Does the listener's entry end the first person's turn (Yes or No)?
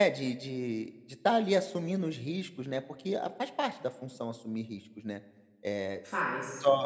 No